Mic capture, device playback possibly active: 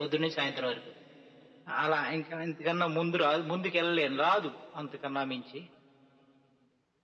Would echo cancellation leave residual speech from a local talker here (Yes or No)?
No